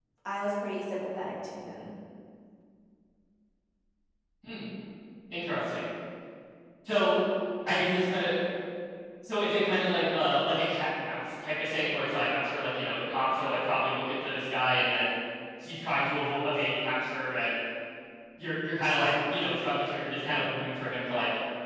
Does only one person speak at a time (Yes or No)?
Yes